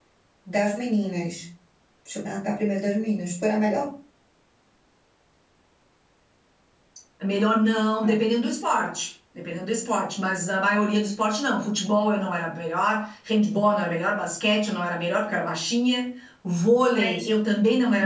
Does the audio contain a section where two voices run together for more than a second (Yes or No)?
No